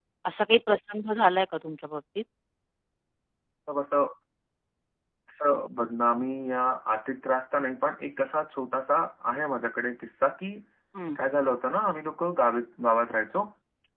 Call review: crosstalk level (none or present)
none